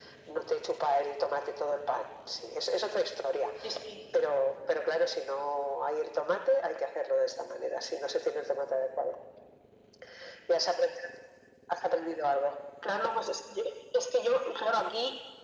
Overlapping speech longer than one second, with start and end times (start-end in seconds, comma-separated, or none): none